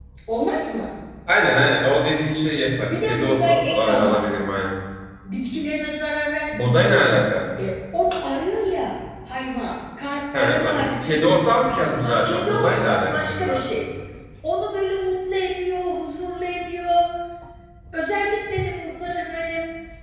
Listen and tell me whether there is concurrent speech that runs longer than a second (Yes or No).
Yes